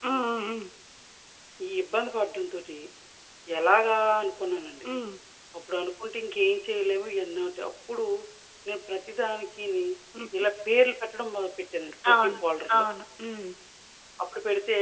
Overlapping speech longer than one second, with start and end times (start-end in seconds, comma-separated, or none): none